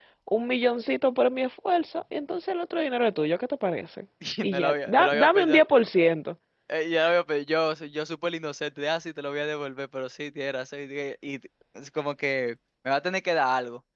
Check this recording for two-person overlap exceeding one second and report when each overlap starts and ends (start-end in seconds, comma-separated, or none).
4.4-5.6